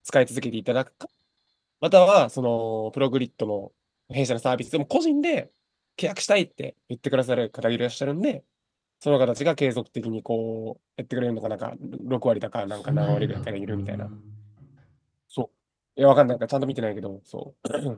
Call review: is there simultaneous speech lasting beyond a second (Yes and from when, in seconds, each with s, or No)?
Yes, from 12.7 s